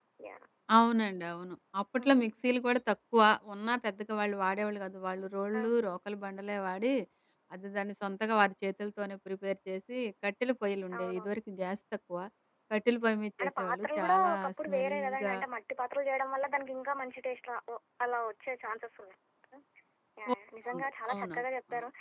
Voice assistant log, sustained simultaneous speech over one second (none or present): present